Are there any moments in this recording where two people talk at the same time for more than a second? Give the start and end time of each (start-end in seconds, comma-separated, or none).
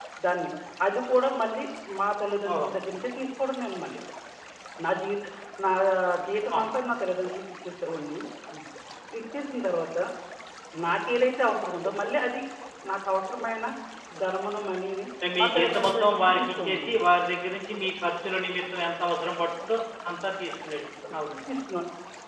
15.4-17.1